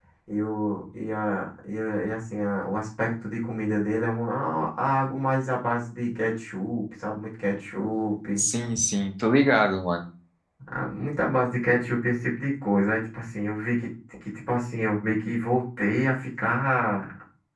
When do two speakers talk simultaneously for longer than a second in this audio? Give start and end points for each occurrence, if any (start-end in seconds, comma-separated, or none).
none